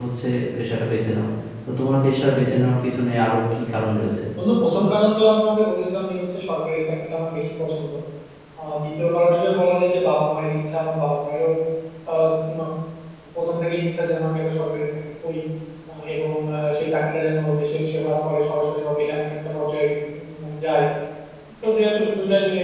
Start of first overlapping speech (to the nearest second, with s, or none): none